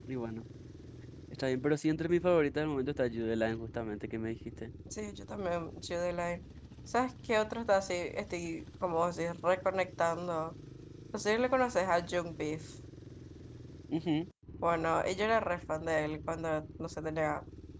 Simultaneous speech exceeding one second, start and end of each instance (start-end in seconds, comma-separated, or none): none